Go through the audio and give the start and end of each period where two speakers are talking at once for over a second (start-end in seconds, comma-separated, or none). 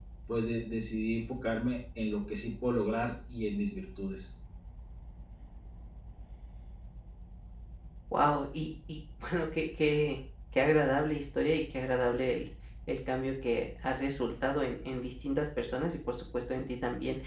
none